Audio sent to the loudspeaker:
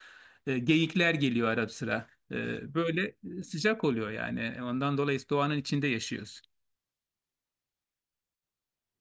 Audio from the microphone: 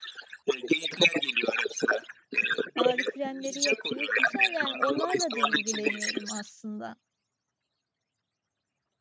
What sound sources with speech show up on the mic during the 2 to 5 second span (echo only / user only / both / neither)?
both